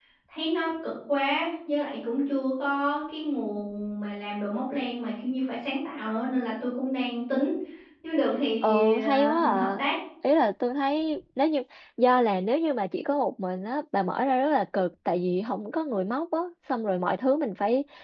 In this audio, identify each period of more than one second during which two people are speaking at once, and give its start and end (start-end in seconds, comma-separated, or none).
8.6-9.9